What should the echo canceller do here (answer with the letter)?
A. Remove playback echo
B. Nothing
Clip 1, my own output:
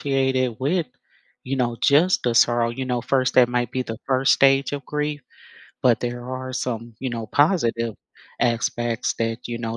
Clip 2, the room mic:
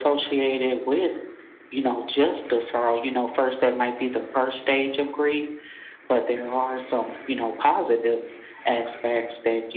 A